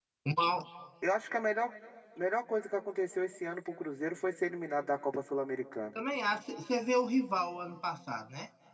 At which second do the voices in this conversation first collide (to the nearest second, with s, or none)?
none